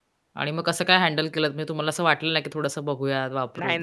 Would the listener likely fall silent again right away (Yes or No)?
No